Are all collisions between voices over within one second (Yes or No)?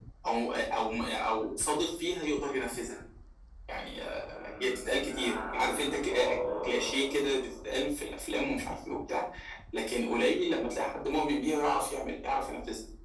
No